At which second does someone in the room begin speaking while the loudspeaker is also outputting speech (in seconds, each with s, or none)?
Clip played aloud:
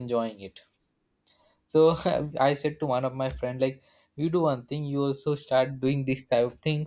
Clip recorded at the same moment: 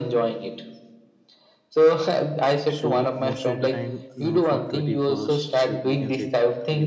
2.6 s